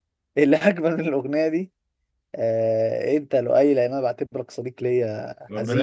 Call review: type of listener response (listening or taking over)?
taking over